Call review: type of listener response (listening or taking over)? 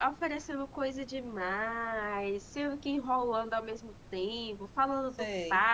listening